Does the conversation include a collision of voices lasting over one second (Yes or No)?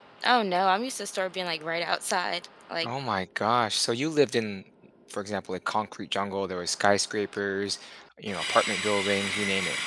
No